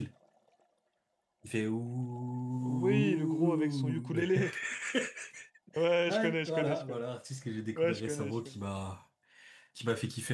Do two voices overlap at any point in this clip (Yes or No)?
Yes